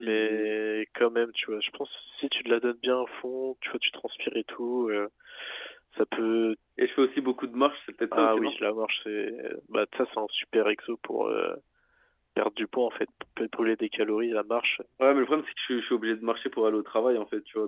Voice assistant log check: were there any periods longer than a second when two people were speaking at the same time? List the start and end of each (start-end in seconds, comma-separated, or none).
none